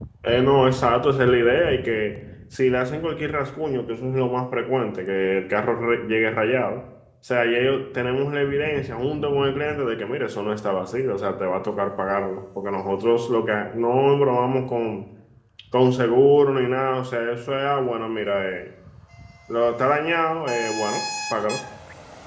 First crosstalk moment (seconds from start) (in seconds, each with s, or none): none